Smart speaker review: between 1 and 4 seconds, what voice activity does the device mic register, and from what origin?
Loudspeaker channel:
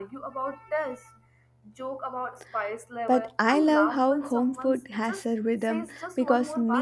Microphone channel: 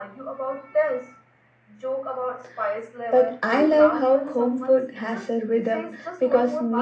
echo only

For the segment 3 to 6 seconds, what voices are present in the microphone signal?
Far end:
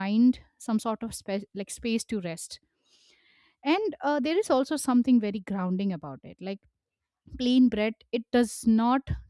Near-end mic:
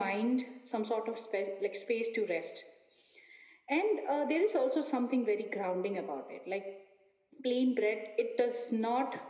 echo only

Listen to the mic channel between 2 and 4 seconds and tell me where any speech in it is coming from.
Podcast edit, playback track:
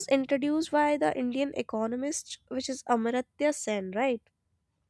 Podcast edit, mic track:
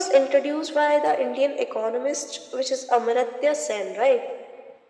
echo only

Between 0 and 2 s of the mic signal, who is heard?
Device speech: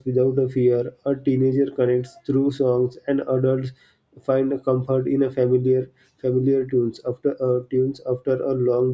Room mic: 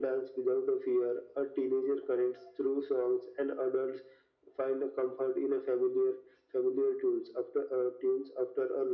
echo only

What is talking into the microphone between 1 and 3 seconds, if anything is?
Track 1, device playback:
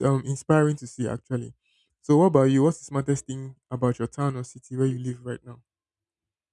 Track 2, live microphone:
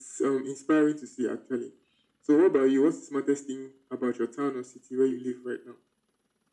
echo only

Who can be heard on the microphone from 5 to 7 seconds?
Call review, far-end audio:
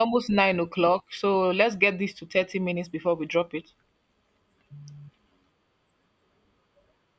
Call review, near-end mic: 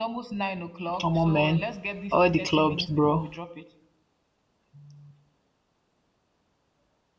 neither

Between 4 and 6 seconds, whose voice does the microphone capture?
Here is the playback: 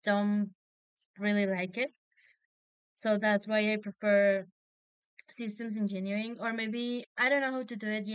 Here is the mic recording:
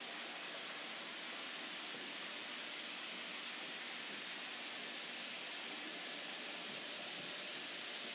neither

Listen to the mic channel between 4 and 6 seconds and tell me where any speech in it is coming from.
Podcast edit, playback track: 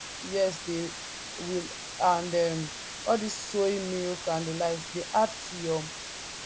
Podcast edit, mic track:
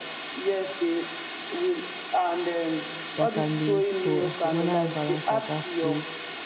both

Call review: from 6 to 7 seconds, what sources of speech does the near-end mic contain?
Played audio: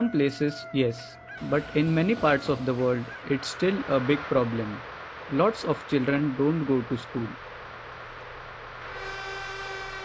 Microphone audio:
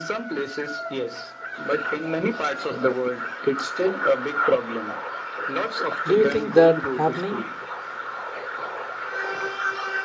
both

